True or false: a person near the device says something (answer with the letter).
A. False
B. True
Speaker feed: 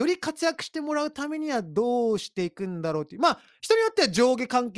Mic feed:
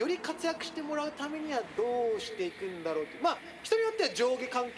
A